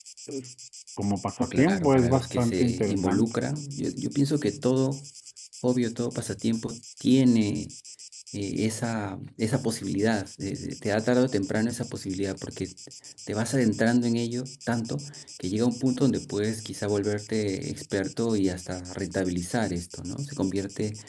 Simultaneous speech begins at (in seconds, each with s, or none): 1.4 s